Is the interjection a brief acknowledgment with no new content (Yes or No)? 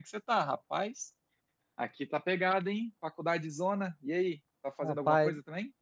No